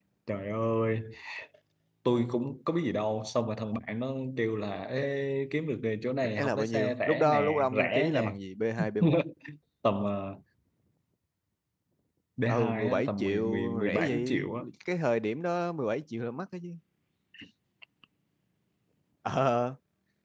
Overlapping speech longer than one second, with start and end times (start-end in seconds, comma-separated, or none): 6.2-8.3, 12.5-14.6